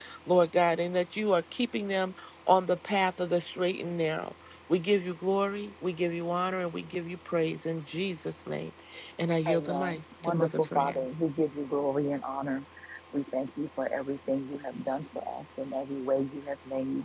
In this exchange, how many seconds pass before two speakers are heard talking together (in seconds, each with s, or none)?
9.5 s